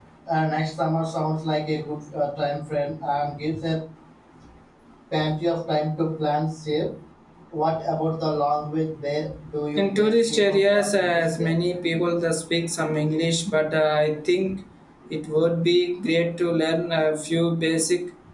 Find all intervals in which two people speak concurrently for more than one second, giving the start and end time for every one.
9.8-11.5

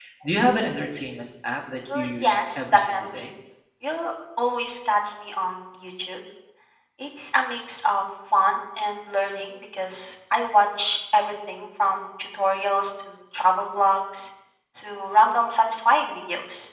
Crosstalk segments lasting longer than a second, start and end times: 1.9-3.3

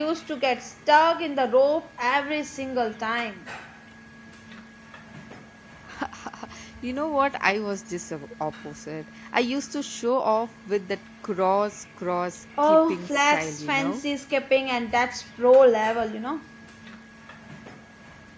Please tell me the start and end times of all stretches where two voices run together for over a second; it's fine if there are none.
12.6-14.0

